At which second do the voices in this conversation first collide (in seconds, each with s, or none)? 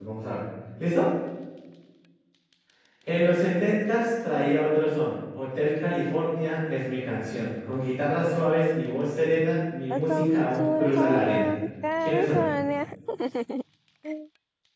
9.9 s